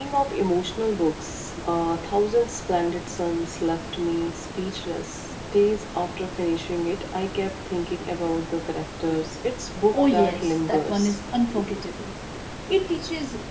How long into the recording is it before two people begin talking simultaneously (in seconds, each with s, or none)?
9.9 s